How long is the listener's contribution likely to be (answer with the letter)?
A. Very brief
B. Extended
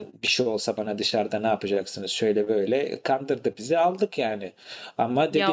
A